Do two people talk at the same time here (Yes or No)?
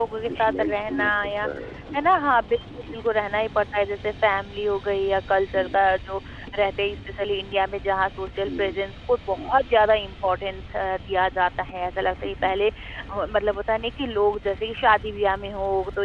Yes